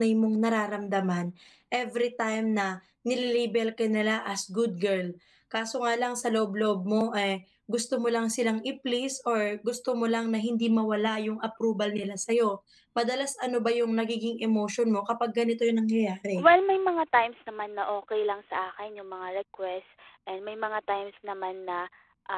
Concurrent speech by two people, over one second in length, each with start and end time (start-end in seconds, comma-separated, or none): none